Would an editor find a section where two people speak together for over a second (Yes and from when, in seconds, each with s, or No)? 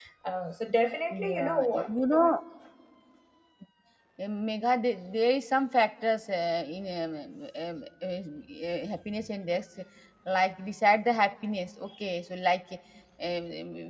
Yes, from 1.1 s